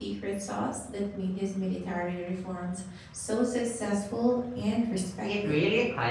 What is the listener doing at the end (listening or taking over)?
taking over